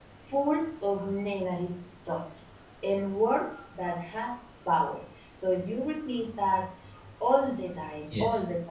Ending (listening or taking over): listening